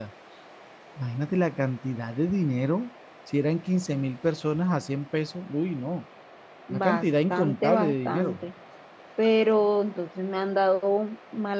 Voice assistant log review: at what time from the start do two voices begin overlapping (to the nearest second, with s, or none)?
7 s